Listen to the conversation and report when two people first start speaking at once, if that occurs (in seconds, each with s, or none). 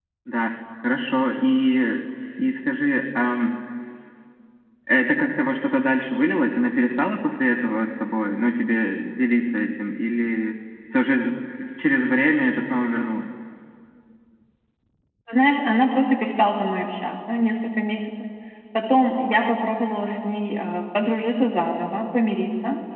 none